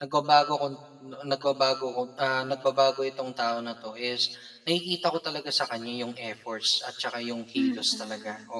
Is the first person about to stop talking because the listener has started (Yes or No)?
Yes